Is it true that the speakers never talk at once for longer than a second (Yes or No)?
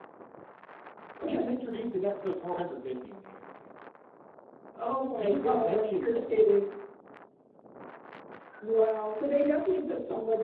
No